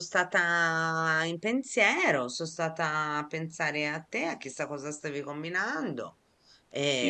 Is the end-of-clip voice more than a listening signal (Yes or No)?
Yes